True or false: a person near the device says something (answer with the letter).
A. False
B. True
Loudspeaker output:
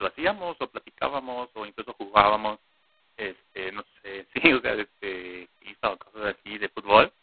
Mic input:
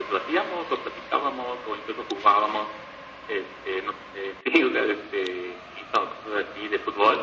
A